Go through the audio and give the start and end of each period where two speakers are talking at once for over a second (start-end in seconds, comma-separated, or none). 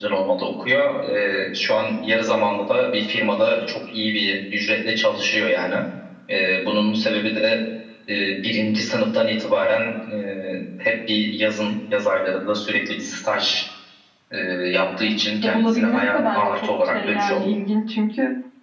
15.4-17.4